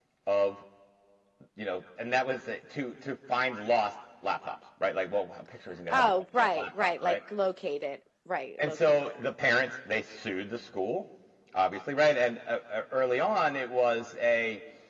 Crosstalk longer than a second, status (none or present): present